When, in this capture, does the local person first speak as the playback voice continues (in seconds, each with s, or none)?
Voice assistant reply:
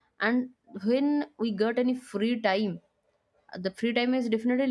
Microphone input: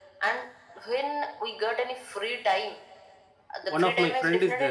3.6 s